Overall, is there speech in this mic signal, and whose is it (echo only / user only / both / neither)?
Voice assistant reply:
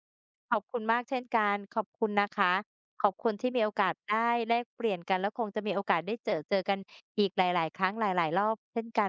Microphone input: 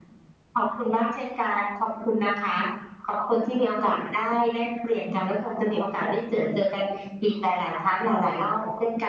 echo only